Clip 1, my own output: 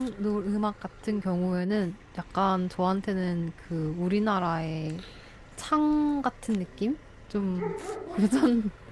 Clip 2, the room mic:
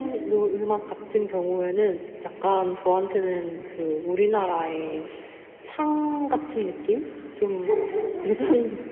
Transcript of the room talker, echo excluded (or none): none